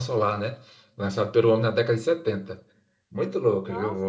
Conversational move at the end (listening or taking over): taking over